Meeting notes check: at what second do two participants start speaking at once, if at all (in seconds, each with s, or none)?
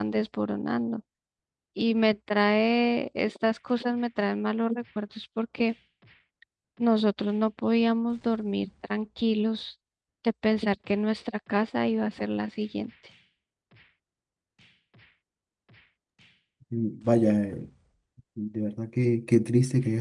none